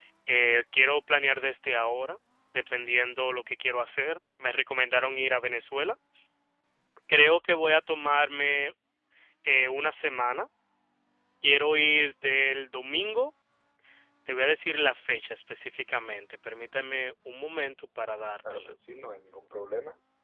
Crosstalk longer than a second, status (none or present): none